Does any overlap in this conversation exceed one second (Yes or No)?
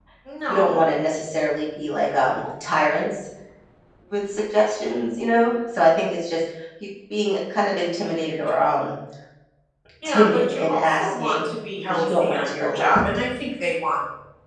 Yes